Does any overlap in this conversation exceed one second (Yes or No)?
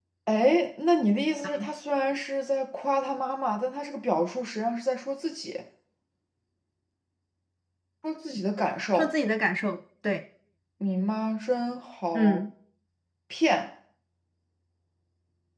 No